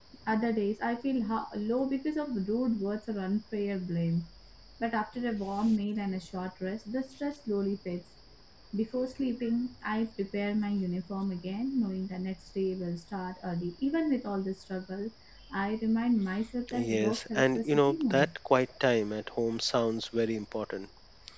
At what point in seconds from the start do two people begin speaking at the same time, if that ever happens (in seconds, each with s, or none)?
16.7 s